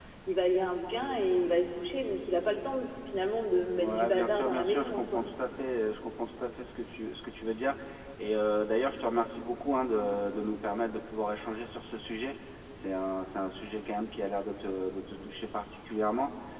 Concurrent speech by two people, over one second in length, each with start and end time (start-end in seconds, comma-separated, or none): 3.8-5.2